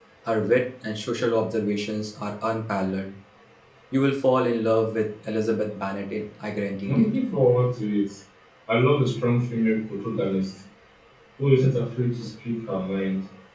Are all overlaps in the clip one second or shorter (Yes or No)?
Yes